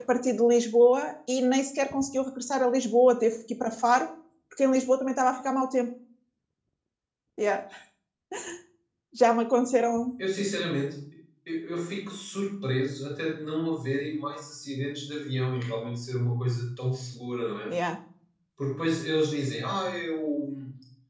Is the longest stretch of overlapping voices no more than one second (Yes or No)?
Yes